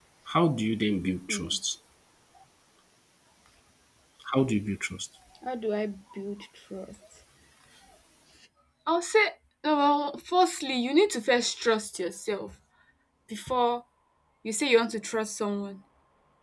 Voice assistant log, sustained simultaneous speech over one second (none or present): none